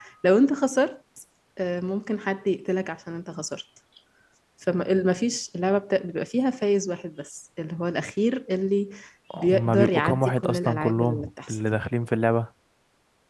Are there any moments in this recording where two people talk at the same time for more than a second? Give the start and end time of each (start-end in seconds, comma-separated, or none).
9.4-11.6